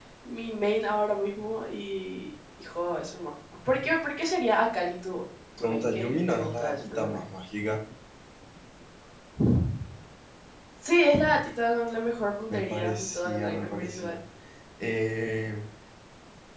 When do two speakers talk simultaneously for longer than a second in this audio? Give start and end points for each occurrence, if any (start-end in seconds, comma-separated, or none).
5.6-7.2, 12.5-14.2